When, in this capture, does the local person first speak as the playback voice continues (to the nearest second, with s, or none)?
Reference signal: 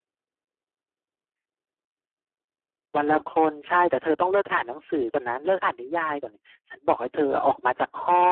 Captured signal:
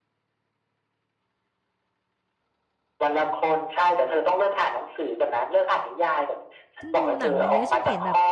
7 s